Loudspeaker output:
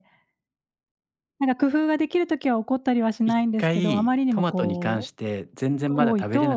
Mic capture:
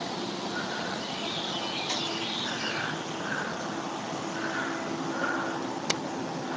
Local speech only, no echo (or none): none